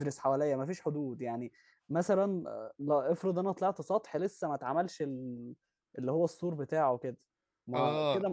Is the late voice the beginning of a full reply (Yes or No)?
No